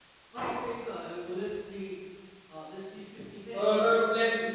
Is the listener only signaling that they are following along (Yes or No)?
No